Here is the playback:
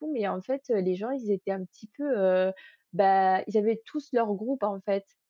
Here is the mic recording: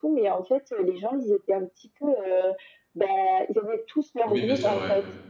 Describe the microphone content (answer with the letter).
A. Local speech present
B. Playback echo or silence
A